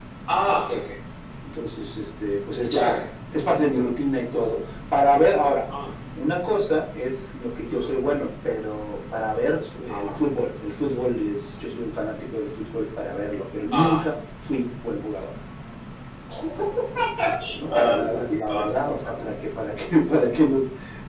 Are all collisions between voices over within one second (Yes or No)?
No